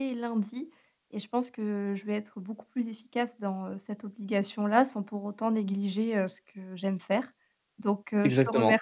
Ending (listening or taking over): listening